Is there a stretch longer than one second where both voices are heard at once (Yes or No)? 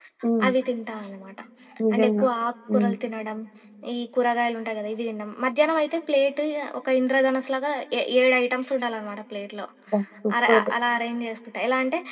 No